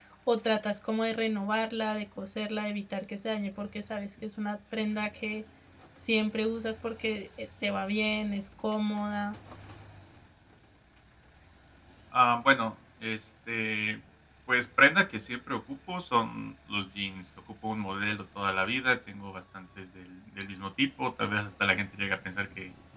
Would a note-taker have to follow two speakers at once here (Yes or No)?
No